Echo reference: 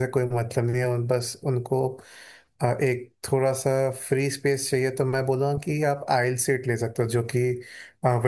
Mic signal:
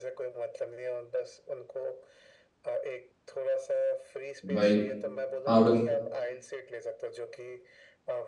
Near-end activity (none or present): present